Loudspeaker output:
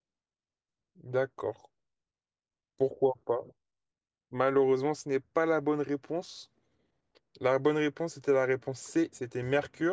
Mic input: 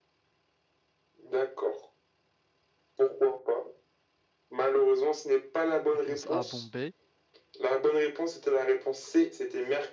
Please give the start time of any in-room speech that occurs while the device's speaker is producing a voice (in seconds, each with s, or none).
5.9 s